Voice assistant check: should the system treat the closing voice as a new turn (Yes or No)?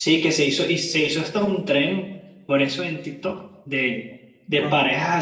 No